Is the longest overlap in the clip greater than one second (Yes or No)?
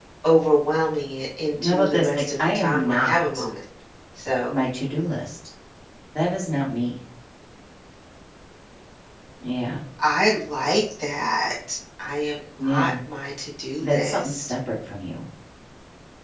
Yes